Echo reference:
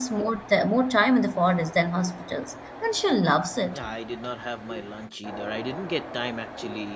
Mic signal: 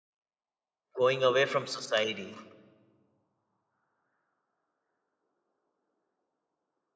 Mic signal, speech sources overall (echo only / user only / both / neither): user only